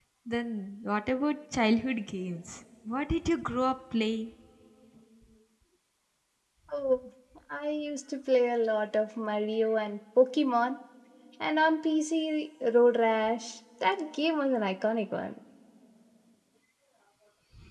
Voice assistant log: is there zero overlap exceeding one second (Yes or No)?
Yes